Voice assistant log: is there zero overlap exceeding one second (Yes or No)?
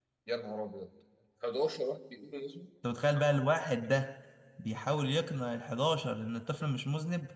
Yes